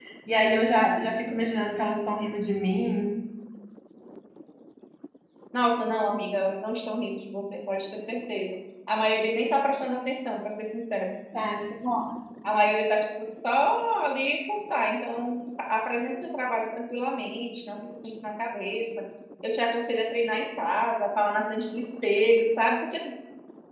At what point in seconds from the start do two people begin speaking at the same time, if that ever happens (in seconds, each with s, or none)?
none